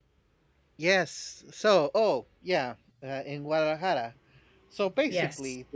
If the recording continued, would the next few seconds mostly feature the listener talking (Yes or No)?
No